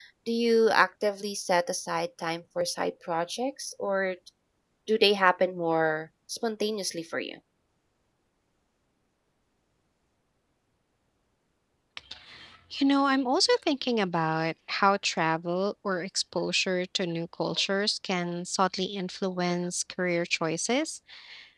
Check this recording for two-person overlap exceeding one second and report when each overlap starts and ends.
none

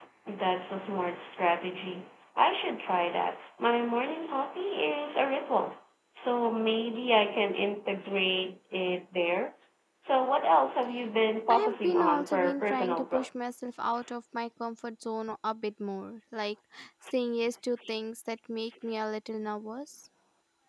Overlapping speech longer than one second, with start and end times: 11.5-13.3

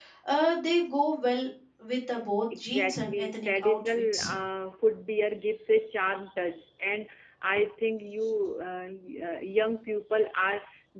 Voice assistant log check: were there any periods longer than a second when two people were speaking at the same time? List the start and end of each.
2.6-4.3

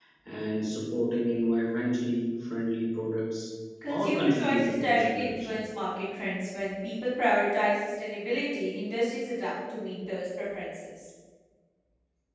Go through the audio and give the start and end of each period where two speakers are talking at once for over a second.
3.9-5.6

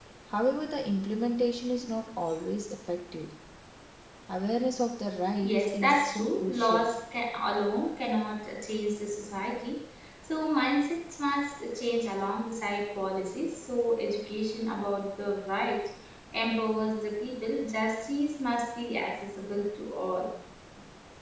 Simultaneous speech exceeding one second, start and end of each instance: 5.4-6.8

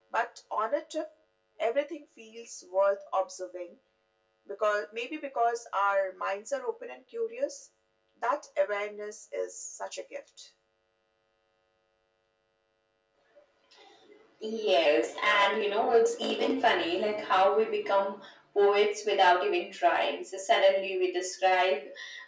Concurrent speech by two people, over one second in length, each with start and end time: none

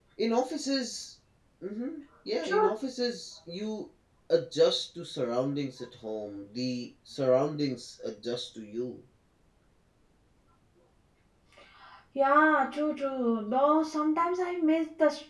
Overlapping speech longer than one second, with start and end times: none

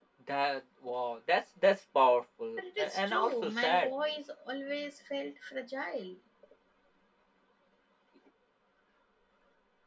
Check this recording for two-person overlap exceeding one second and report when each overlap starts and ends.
2.6-3.9

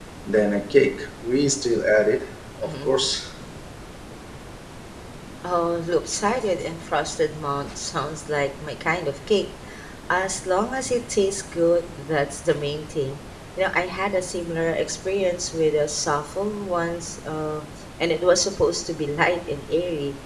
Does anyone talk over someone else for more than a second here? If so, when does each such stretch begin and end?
none

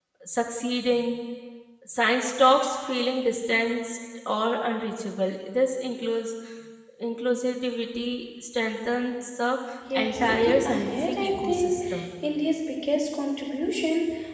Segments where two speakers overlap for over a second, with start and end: 9.9-11.8

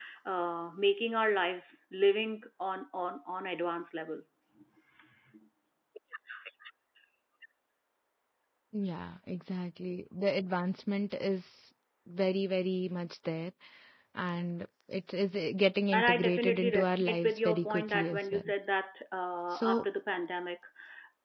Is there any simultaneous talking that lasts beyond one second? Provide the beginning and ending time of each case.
15.9-18.5

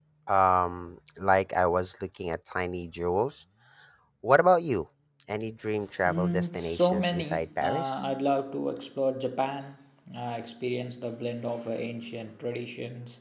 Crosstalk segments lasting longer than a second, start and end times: 6.0-8.1

